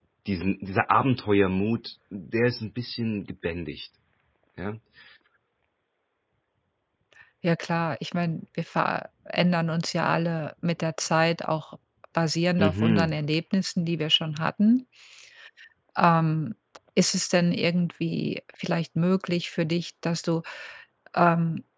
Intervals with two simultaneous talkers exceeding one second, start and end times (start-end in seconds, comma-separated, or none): none